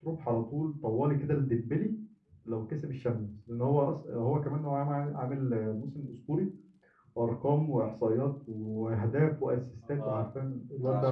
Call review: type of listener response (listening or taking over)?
taking over